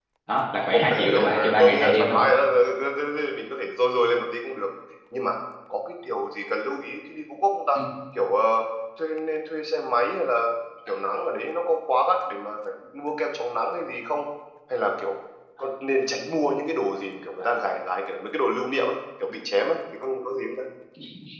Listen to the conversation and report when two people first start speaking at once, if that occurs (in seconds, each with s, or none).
0.7 s